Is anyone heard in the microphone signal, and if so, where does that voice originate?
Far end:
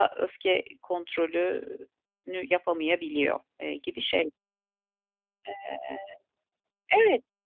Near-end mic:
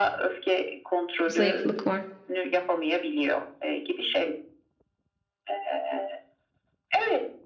both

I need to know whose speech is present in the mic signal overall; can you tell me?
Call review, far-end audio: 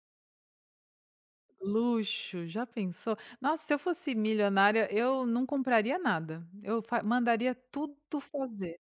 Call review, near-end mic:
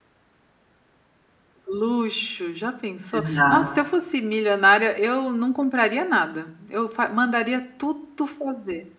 both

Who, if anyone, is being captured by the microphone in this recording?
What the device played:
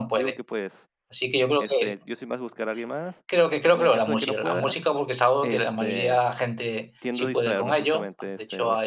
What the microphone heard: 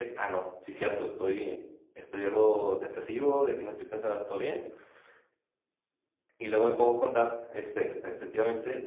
user only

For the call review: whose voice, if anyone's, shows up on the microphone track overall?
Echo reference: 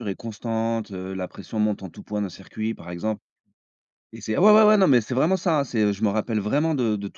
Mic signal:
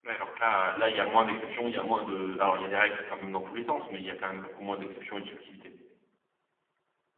user only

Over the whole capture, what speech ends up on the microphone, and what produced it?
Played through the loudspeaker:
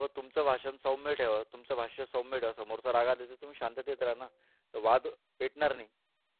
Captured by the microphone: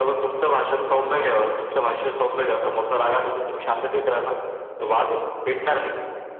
echo only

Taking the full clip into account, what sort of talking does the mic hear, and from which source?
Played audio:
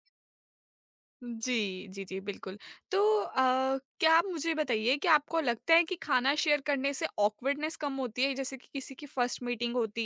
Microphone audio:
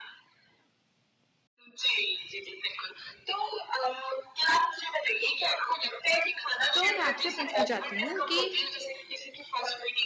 both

